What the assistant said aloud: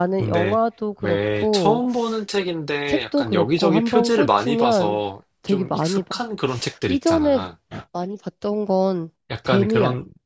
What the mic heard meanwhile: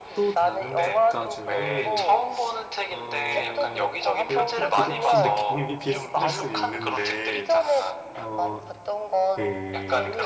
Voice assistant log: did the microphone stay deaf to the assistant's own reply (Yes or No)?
No